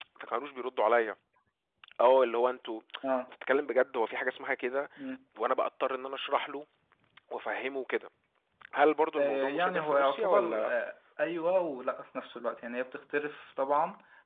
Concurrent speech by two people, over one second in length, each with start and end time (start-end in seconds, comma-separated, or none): 9.2-10.7